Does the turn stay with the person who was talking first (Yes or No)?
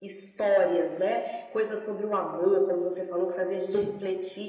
Yes